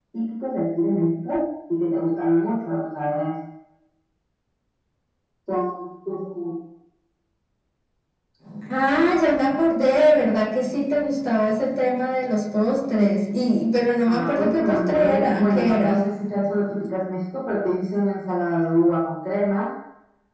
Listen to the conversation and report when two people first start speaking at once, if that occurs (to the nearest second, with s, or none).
14 s